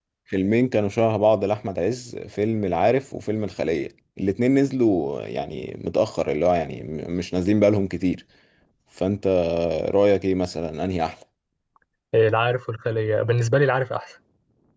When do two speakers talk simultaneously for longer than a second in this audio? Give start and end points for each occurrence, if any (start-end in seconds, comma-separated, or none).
none